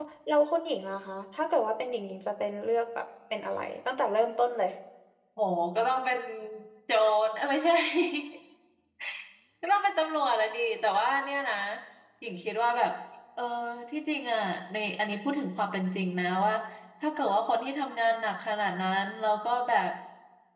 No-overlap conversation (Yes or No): Yes